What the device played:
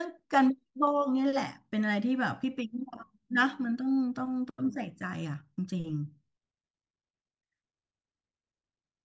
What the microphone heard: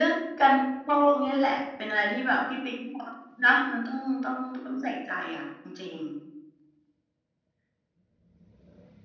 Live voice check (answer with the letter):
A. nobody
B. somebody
A